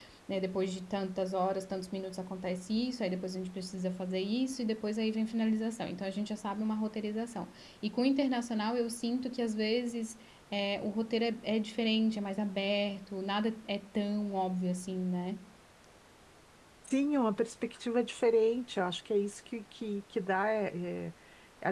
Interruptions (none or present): none